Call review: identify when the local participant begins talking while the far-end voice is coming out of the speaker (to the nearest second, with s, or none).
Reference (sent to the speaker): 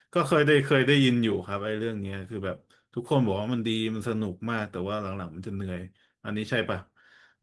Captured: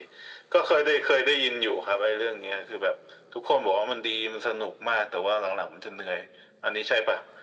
none